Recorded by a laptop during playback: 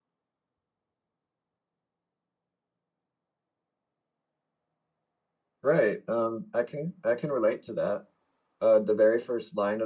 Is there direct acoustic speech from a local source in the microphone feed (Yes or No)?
Yes